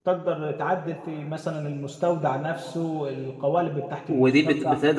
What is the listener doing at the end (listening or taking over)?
taking over